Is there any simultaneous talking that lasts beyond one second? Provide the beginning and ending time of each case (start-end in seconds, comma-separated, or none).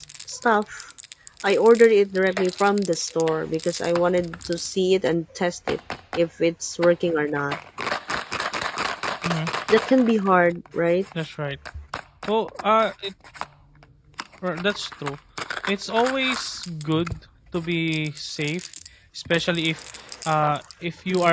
none